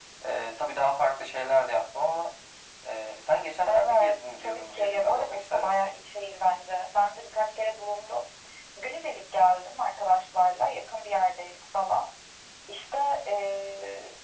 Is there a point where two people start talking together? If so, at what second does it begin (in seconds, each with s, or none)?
3.7 s